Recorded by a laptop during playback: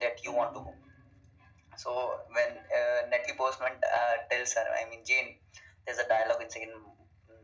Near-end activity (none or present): present